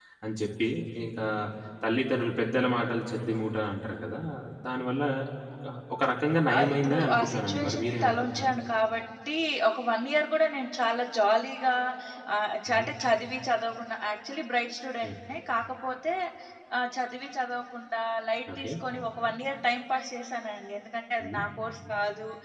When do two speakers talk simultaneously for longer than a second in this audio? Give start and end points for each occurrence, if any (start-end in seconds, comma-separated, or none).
6.6-8.6